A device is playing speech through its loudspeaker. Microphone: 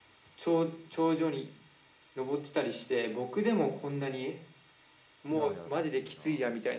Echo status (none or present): present